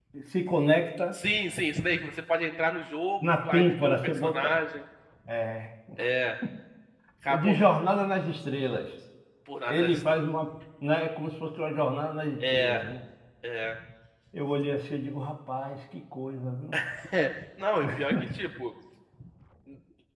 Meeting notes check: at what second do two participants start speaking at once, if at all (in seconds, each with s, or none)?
3.3 s